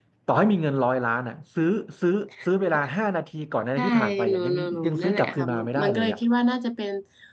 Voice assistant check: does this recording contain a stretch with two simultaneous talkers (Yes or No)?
Yes